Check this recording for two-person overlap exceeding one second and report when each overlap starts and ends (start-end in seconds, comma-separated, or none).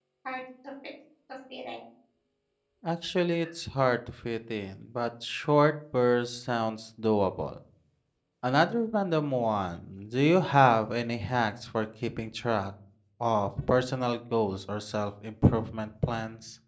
none